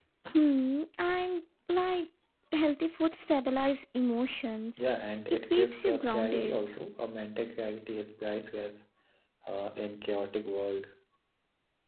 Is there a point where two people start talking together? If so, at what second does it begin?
5 s

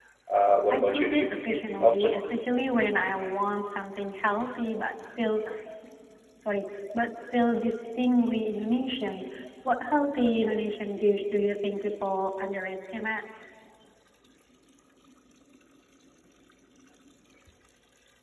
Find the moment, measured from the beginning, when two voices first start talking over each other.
1 s

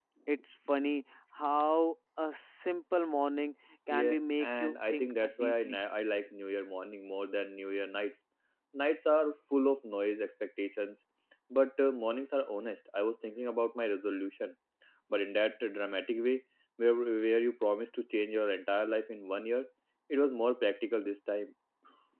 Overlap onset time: 4 s

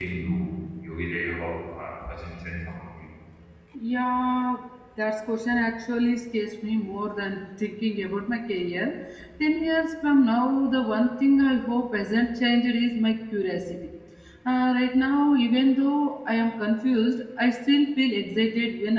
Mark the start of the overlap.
none

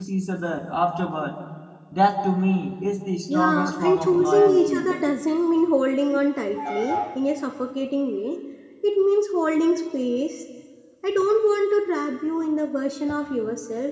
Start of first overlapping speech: 3 s

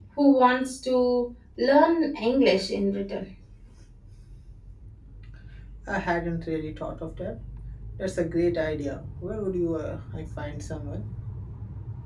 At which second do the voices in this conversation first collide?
none

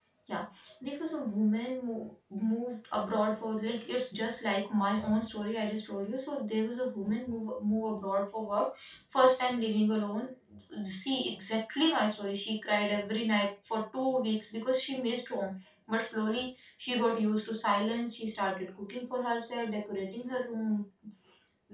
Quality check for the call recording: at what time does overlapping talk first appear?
none

